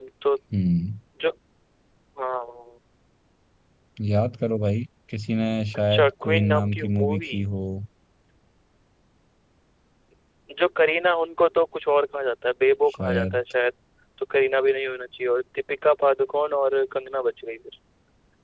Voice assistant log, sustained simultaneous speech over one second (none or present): present